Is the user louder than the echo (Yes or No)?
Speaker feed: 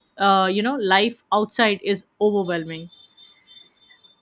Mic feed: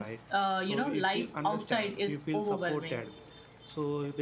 No